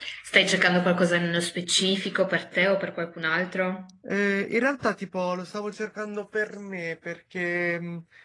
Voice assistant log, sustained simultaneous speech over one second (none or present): none